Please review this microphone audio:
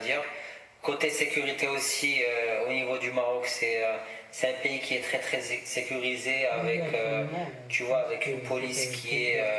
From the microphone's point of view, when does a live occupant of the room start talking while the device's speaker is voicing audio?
6.5 s

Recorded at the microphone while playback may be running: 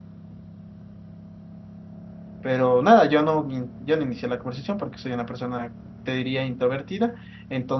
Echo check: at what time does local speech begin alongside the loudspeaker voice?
2.4 s

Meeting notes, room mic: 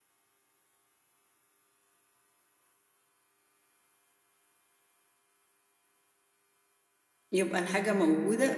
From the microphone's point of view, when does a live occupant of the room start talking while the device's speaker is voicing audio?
7.3 s

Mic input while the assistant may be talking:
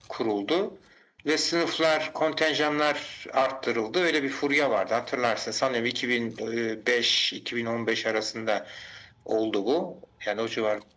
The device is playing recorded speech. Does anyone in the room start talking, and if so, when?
none

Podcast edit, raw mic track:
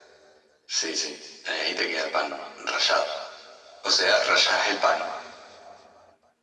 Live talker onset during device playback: none

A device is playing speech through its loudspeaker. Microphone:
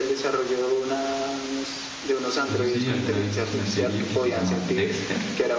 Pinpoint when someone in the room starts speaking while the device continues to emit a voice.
2.4 s

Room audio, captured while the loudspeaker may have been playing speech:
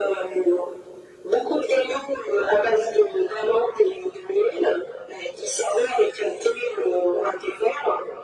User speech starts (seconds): none

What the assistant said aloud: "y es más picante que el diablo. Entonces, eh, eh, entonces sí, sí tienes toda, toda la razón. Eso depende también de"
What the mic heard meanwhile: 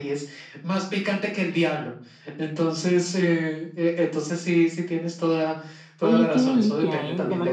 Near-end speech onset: 6.0 s

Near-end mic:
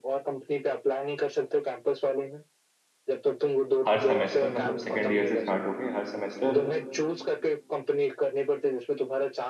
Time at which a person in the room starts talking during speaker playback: 3.9 s

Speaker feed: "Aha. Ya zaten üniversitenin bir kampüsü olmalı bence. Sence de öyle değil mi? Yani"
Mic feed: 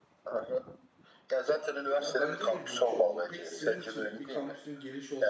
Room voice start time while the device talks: 2.0 s

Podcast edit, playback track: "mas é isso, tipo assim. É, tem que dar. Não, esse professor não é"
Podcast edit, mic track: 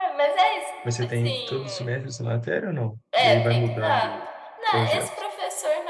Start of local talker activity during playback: 0.8 s

